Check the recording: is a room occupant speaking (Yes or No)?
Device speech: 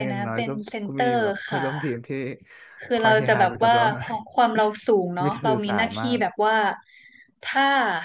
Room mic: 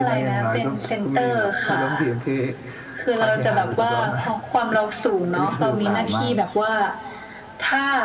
Yes